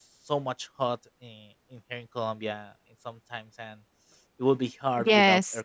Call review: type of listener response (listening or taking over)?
taking over